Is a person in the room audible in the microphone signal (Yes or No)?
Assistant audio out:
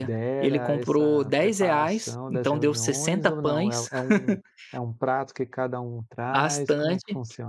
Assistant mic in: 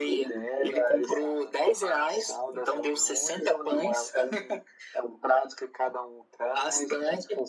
No